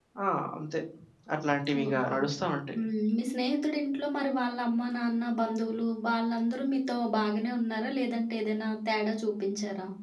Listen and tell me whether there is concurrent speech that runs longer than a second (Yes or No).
No